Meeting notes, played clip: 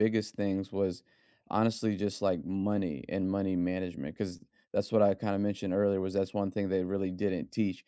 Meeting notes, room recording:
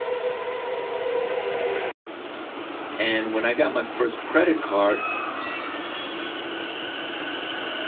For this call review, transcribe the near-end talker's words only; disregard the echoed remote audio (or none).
And when I got my first credit card,